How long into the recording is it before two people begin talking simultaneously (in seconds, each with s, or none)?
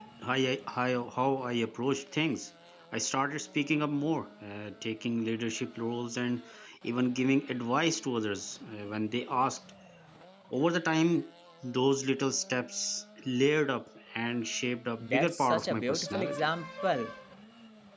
15.0 s